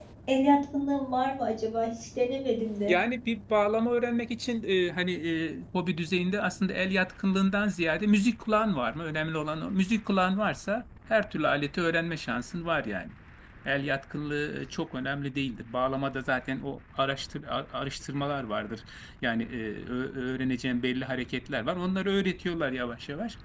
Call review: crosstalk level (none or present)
none